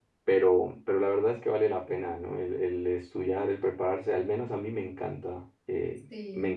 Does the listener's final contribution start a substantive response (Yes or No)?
No